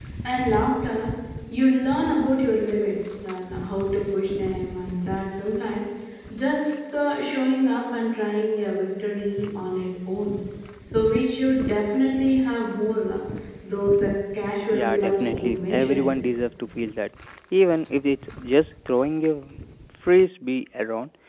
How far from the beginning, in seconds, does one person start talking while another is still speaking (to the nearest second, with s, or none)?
15 s